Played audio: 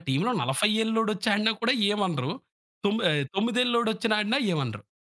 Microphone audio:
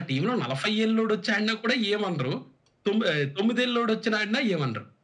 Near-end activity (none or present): none